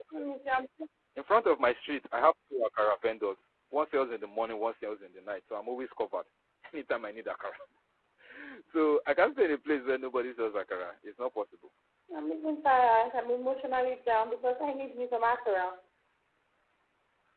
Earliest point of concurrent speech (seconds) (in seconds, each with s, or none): none